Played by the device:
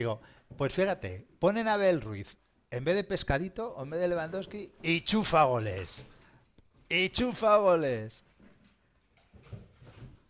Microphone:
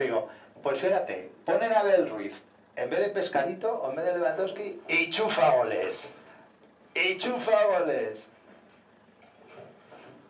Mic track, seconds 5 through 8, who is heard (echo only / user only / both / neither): echo only